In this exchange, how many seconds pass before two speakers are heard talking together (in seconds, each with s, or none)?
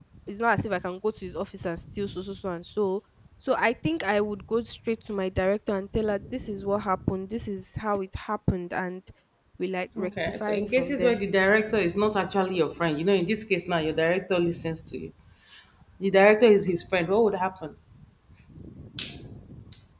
10.0 s